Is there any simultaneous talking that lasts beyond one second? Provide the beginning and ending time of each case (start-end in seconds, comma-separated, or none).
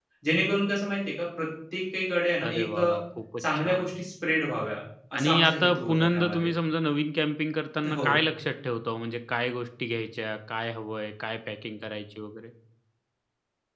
5.2-6.5